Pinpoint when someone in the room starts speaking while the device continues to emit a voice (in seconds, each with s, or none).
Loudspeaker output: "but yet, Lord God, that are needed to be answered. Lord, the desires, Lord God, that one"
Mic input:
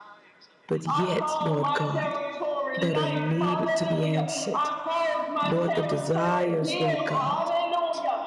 0.9 s